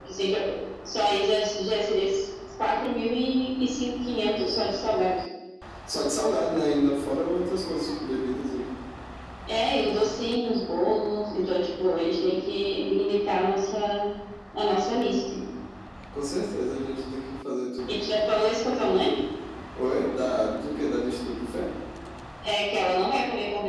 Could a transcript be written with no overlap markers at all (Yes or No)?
Yes